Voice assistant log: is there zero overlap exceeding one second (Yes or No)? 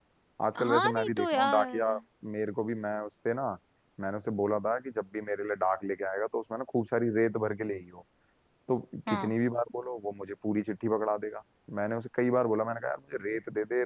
No